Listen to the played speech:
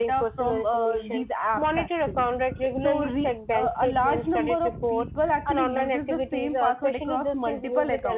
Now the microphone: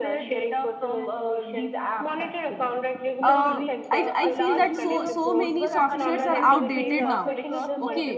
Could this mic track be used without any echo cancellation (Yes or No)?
No